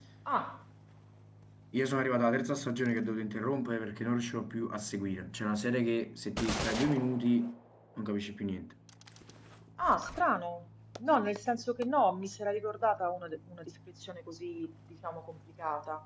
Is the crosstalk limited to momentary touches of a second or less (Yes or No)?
Yes